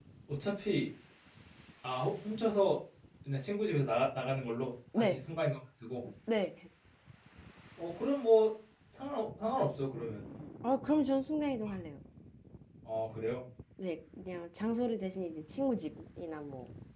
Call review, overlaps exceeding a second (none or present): none